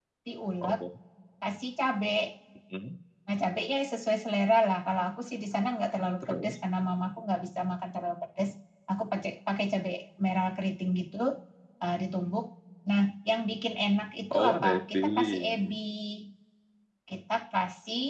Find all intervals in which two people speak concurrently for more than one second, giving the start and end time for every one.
14.3-15.7

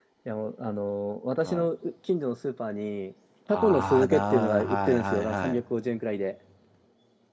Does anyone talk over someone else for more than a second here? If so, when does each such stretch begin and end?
3.5-5.6

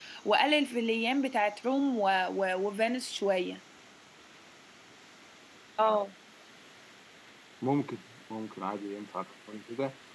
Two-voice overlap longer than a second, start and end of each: none

